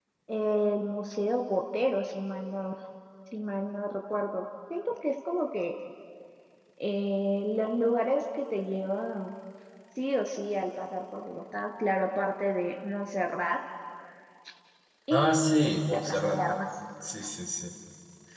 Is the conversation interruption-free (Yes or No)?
No